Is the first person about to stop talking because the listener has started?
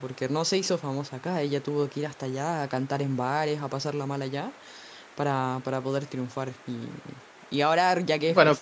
No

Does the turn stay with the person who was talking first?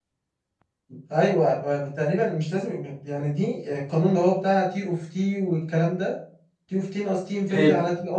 Yes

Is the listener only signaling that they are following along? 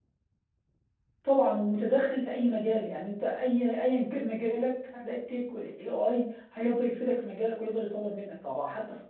Yes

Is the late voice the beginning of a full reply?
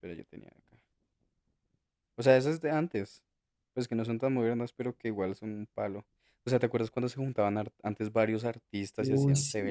Yes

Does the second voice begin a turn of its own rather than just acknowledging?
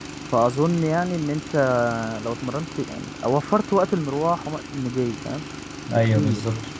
Yes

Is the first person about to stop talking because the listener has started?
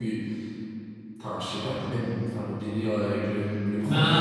Yes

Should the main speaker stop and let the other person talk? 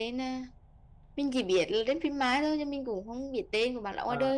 Yes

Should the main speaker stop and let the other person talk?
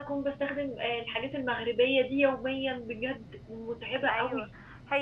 Yes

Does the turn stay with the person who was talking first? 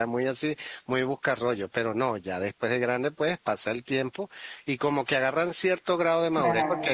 Yes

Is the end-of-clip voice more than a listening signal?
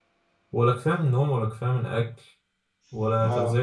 No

